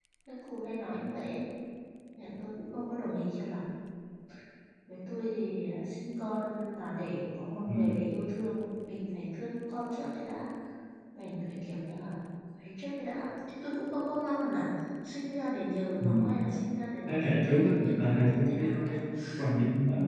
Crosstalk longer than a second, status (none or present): present